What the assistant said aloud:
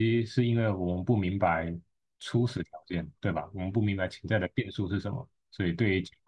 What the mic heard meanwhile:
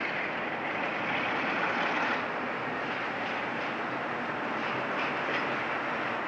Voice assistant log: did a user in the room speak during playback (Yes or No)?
No